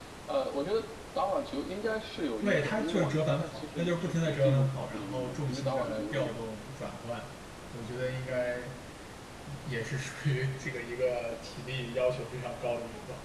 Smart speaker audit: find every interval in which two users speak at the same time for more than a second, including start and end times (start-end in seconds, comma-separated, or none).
2.4-6.3